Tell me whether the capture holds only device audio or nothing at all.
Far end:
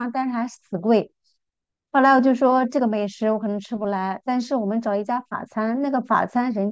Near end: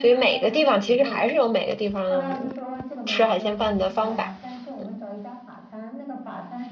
No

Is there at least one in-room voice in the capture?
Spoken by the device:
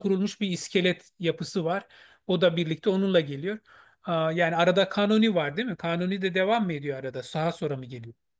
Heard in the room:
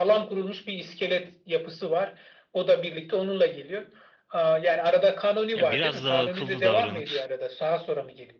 Yes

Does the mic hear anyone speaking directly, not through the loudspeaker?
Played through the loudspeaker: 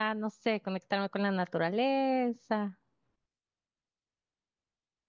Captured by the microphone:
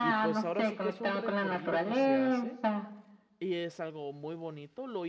Yes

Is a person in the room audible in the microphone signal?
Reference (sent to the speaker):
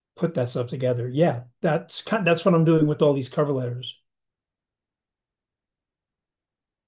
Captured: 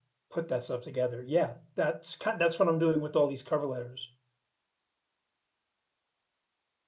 No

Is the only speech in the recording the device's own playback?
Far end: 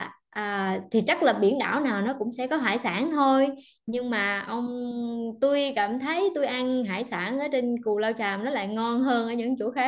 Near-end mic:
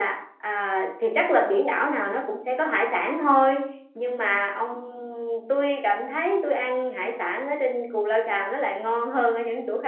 Yes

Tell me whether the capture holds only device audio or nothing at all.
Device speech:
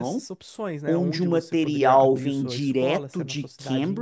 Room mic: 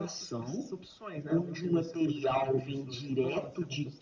Yes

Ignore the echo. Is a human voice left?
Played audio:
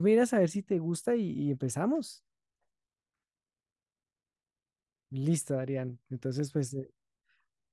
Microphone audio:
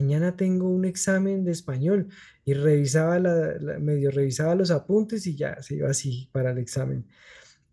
Yes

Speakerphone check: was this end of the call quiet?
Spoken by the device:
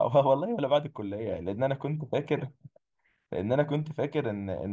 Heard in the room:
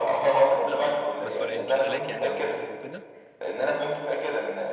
No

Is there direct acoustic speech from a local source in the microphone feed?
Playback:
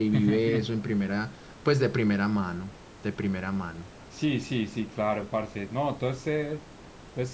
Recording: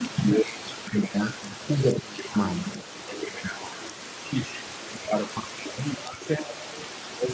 No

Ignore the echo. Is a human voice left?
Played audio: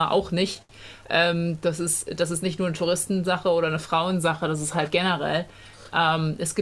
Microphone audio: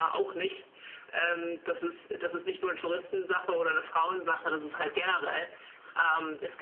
No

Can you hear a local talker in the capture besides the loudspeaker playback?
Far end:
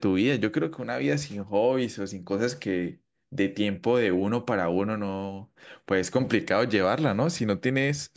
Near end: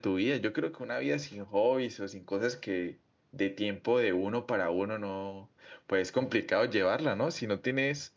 No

